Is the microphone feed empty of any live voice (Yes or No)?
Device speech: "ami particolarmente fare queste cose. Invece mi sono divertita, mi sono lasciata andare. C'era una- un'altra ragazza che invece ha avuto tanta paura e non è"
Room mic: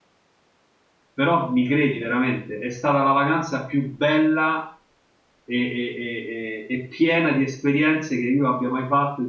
No